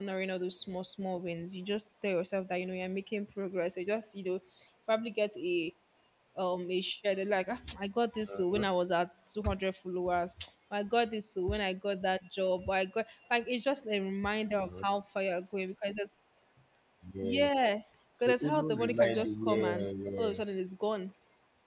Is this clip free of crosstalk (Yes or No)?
No